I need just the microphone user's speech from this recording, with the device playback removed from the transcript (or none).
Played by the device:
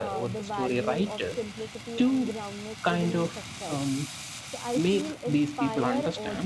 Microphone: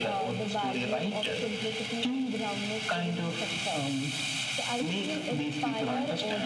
none